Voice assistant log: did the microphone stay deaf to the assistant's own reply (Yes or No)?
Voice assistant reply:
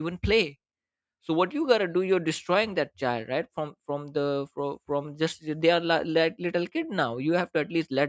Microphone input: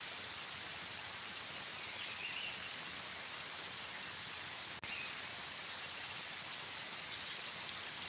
Yes